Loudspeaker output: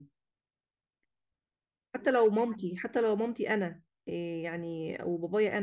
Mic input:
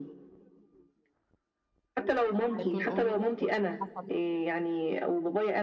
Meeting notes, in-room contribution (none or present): present